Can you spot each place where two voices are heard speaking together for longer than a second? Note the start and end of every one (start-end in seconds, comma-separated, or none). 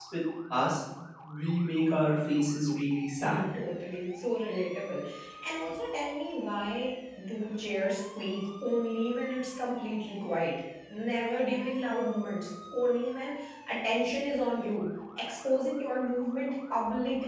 none